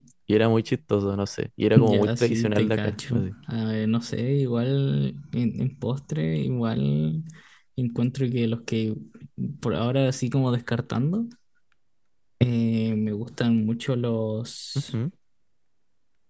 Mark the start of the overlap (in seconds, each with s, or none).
1.8 s